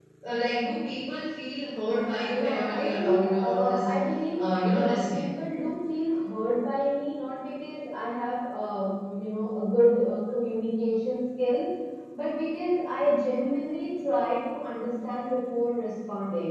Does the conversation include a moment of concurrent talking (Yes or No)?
Yes